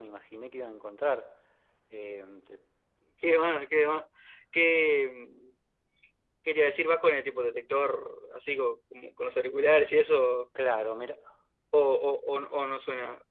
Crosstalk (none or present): none